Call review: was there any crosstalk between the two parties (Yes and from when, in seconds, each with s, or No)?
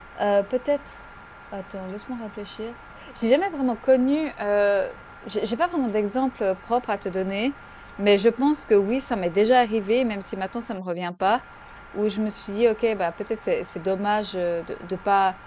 No